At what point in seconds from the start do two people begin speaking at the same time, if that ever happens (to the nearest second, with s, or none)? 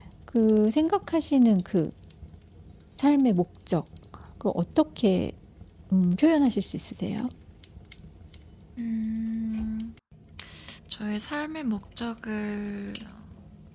none